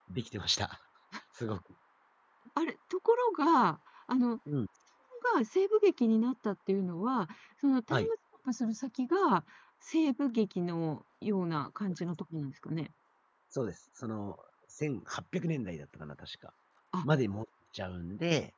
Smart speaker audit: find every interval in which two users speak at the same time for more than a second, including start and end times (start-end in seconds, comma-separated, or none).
none